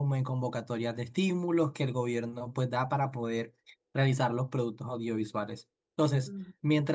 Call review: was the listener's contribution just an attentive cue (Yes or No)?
Yes